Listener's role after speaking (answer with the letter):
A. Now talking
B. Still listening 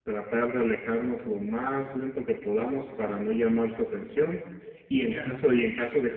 B